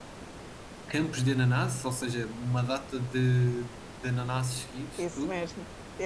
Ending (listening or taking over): taking over